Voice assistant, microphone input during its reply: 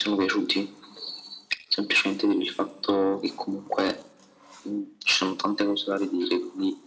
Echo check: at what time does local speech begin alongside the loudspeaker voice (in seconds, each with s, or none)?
none